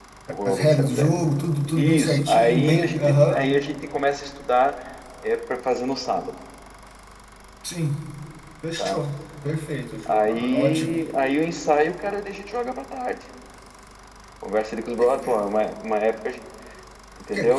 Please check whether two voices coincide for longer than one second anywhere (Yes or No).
Yes